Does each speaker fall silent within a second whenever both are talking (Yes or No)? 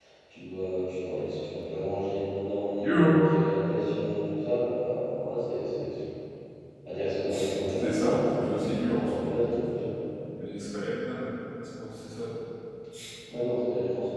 No